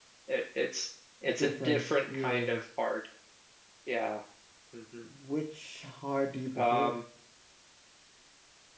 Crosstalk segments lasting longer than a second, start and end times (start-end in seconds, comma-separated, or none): 1.3-2.6